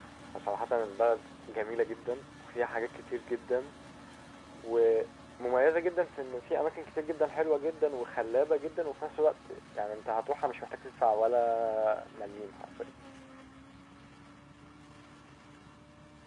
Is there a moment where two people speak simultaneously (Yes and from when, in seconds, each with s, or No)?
No